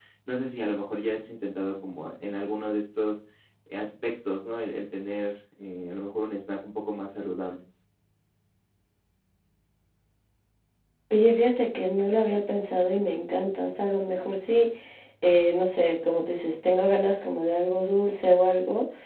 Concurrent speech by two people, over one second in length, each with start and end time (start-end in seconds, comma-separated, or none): none